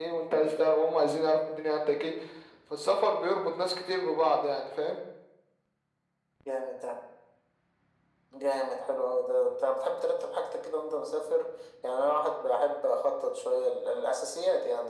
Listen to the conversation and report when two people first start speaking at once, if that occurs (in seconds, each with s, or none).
none